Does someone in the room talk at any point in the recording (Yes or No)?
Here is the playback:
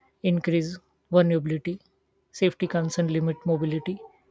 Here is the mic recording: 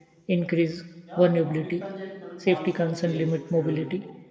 Yes